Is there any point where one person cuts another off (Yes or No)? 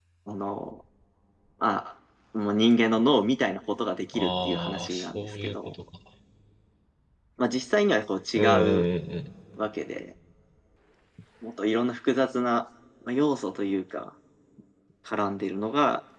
Yes